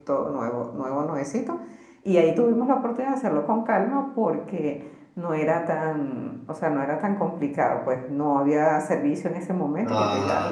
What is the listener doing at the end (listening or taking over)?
taking over